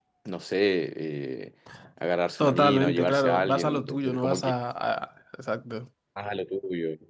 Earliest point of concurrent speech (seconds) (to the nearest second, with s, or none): 2 s